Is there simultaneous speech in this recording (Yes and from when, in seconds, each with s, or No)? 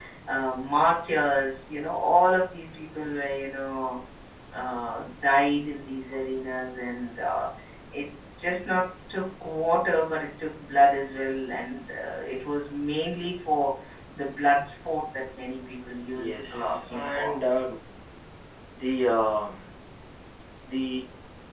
Yes, from 16.2 s